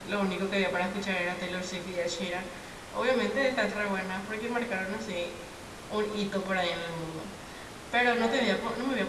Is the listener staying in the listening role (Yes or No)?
Yes